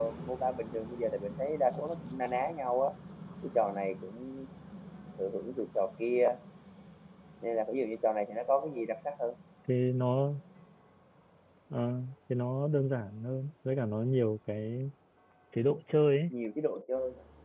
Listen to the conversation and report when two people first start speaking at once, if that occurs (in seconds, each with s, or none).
none